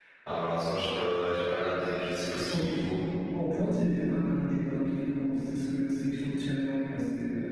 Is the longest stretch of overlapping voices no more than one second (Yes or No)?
Yes